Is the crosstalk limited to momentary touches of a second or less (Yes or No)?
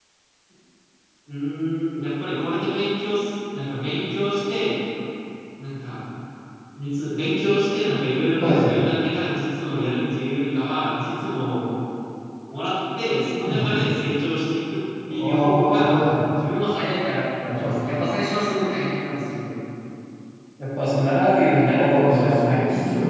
No